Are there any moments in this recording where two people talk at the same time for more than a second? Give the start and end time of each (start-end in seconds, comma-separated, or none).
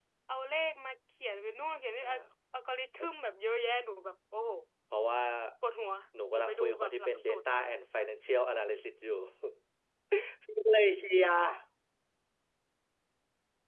6.3-7.6